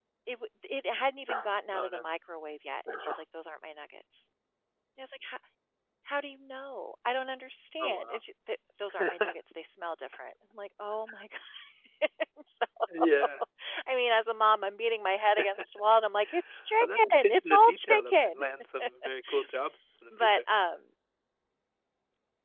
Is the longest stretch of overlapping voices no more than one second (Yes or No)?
No